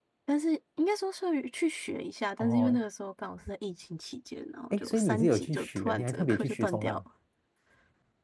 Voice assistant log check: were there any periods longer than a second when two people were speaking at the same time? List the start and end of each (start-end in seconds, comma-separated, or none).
4.7-7.0